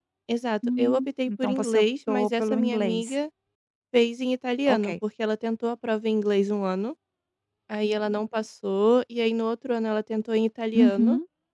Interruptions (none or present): present